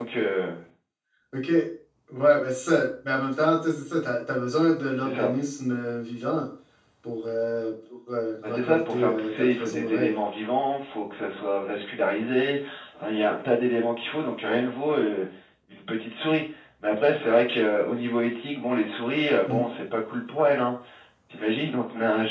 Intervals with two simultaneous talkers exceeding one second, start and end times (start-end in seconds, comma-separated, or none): 8.4-10.2